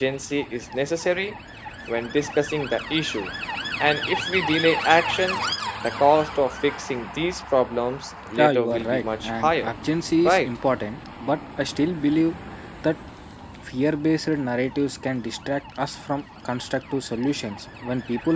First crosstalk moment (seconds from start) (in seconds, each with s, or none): 8.4 s